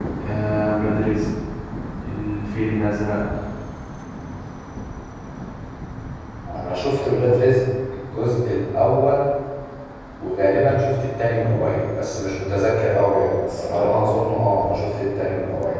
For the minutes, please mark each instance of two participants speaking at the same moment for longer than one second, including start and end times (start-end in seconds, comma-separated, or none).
none